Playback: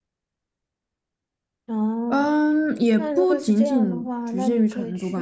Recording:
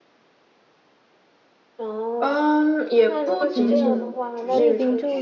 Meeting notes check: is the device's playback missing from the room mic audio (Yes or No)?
No